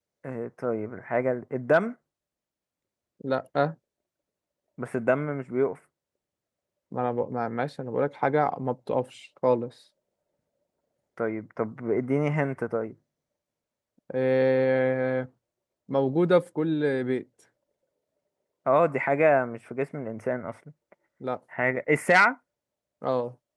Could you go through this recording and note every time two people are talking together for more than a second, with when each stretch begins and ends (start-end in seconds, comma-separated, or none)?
none